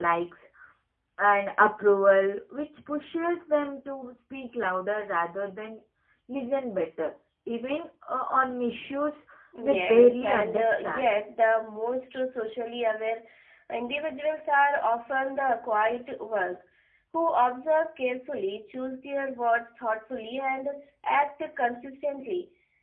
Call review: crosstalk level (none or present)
present